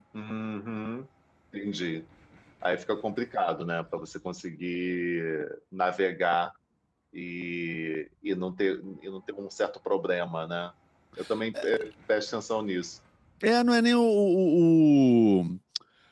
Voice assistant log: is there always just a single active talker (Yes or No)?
Yes